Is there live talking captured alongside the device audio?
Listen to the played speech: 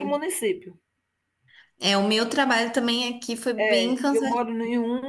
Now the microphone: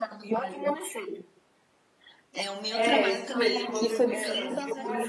Yes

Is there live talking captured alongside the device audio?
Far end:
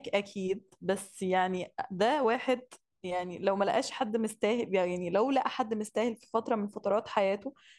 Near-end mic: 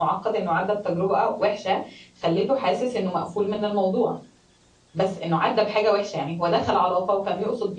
Yes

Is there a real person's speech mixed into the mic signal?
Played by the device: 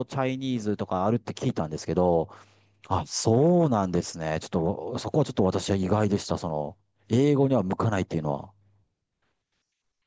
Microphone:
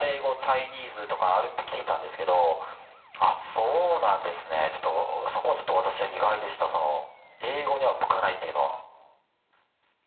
No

